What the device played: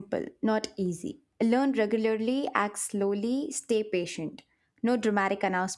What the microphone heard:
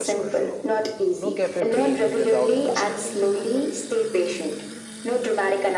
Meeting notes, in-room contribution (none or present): present